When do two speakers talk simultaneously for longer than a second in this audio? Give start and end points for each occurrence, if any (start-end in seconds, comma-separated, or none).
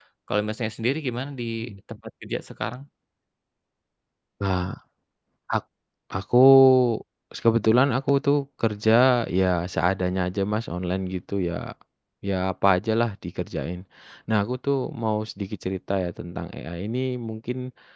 none